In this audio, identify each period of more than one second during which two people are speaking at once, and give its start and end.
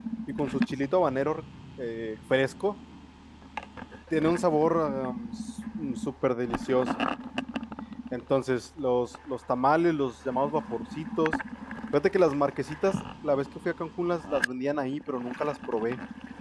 none

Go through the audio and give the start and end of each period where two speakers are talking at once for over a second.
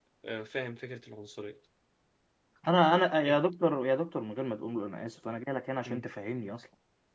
none

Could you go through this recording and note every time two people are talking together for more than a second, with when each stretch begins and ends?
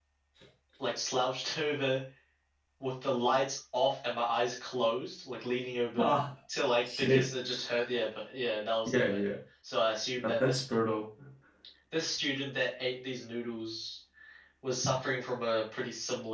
none

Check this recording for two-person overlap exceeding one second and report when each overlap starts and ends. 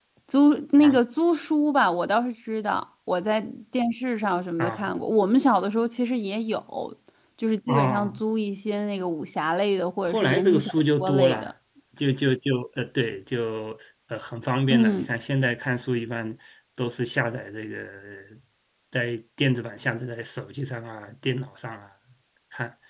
10.1-11.5

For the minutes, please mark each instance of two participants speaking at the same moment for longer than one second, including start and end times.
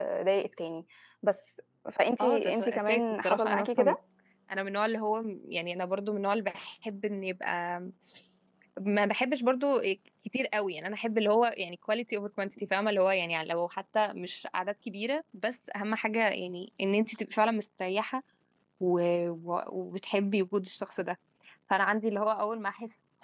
2.2-4.0

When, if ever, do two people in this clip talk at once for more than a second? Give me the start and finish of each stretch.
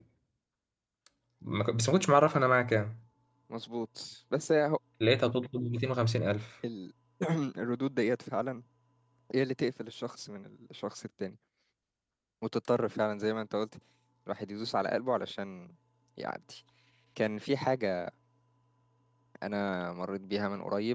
none

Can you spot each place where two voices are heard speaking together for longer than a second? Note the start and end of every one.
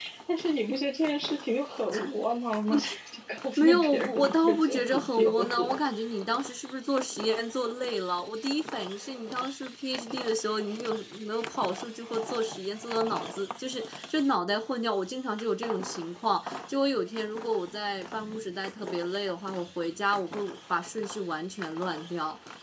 3.6-5.7

